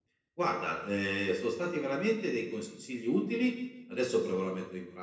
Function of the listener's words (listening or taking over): listening